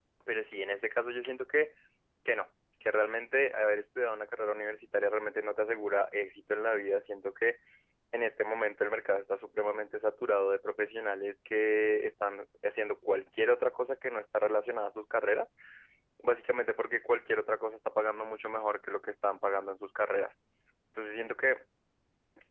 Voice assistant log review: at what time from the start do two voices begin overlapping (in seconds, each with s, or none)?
none